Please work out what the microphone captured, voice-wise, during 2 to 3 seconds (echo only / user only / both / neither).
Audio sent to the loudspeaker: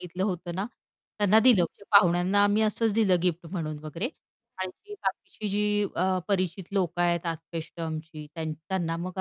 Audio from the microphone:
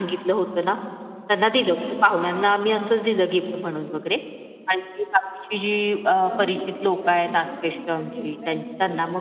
echo only